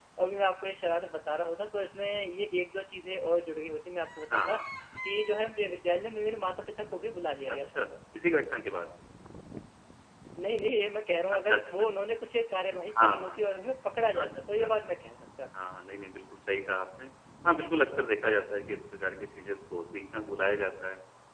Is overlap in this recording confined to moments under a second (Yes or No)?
Yes